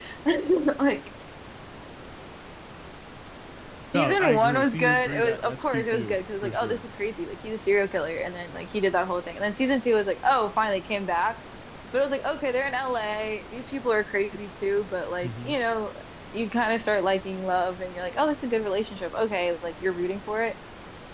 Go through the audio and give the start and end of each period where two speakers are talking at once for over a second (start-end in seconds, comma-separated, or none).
4.0-6.8